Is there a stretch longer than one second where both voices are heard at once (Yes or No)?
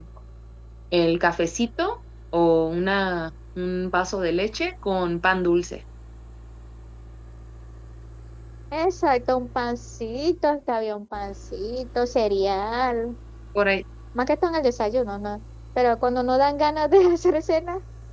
No